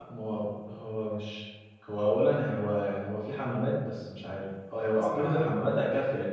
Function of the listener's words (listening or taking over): listening